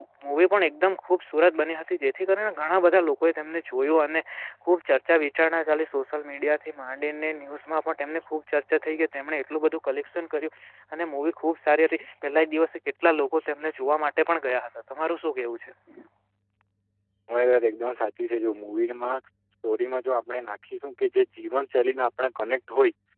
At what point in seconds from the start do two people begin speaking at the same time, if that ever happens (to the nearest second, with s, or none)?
none